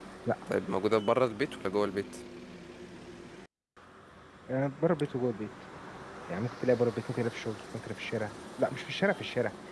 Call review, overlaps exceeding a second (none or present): none